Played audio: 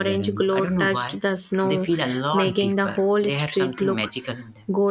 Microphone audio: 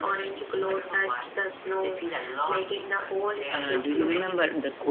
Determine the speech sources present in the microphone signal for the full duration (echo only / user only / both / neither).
both